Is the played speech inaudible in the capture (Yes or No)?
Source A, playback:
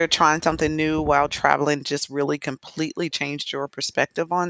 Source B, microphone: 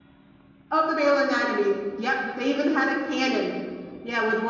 Yes